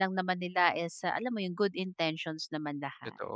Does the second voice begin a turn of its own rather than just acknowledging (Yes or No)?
Yes